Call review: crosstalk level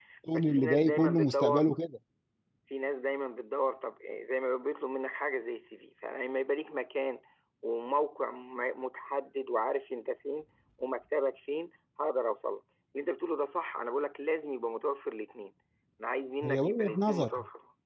present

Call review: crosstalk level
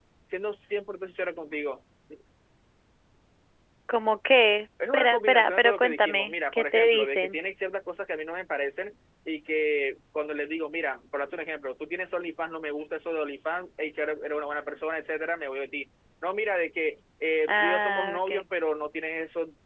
present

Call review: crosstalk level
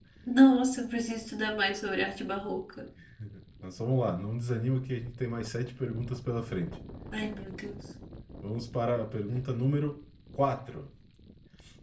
none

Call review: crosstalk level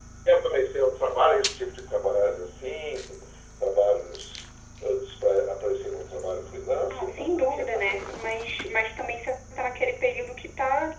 present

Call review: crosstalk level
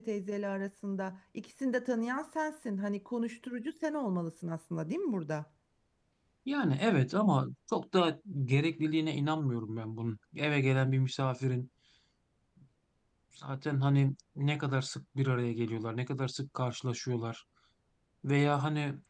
none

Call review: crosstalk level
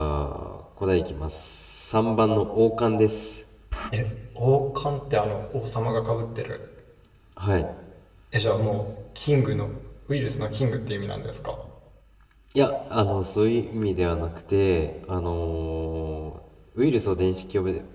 none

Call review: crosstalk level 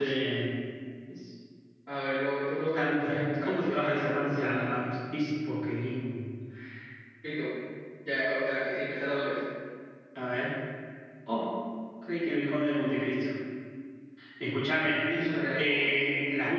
present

